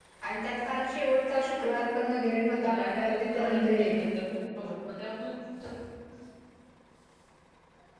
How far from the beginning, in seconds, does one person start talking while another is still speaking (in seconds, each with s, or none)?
2.6 s